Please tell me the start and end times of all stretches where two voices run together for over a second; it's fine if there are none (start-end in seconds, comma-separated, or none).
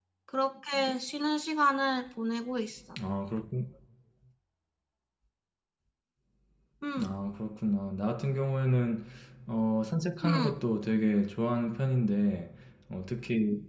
none